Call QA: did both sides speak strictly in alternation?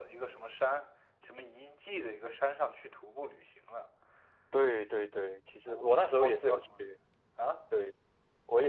No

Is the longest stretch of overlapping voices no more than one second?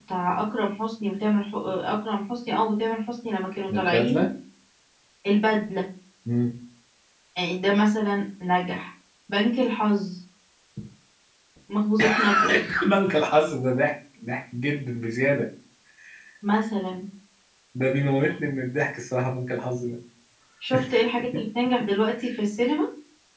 Yes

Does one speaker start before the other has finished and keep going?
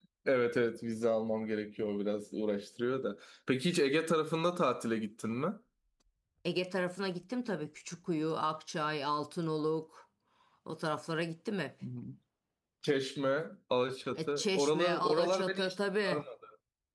Yes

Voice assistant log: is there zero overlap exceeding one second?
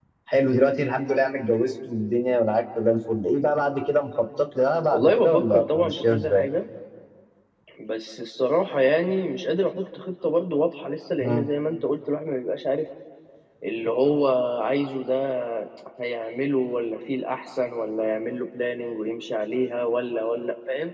No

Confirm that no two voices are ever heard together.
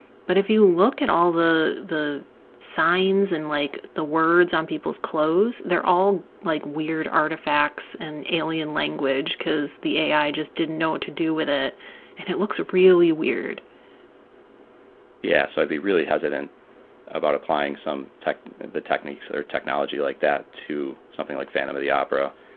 Yes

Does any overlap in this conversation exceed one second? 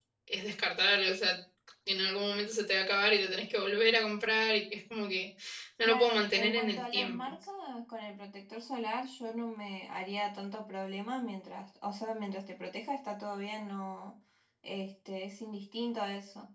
Yes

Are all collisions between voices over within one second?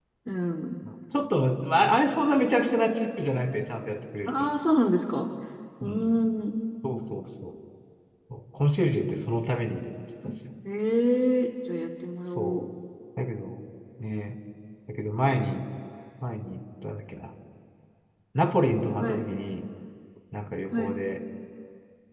Yes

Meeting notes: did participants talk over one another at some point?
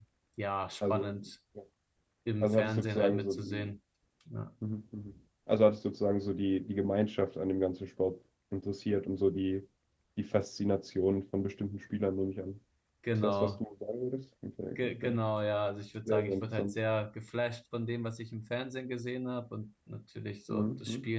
Yes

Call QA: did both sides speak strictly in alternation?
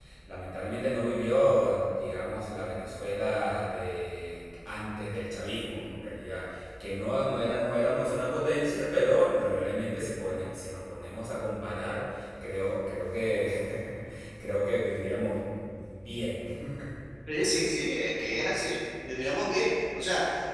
Yes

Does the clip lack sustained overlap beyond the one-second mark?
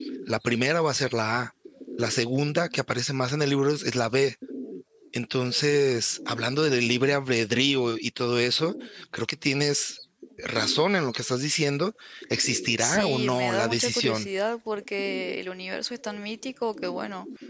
No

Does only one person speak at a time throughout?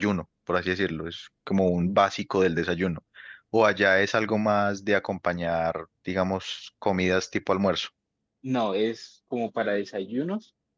Yes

